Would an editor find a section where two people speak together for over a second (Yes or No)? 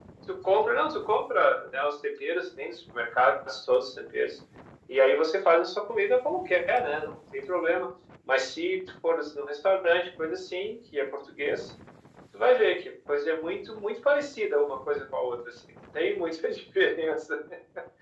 No